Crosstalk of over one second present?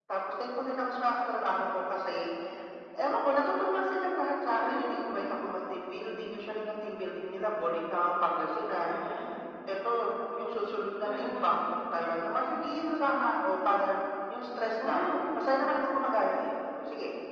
No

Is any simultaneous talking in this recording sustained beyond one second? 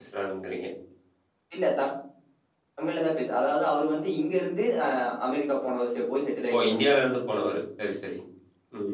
No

